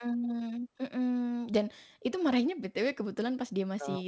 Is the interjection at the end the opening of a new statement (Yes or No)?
No